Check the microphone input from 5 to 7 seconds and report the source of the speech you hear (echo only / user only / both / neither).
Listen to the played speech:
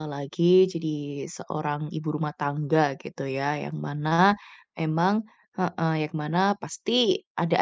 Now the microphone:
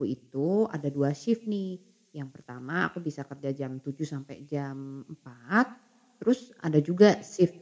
user only